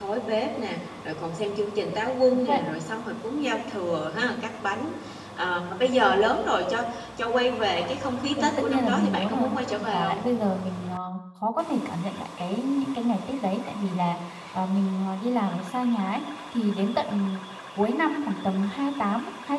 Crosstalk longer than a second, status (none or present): present